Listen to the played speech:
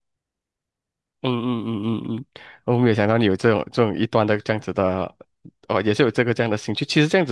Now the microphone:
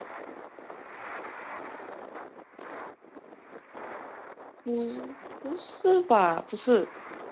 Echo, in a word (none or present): none